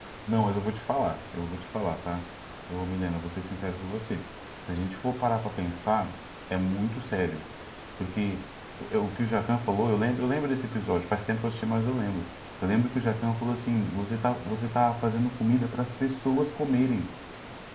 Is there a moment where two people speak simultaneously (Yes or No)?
No